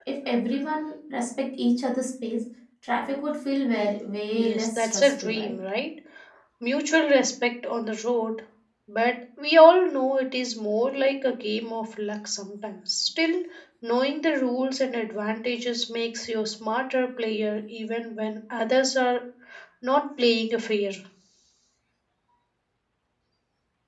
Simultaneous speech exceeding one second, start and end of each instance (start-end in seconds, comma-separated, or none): 4.3-5.5